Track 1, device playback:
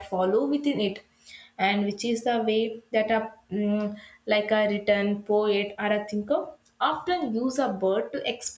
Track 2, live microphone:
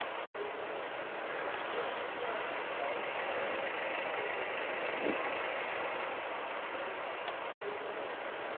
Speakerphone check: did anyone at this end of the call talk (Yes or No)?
No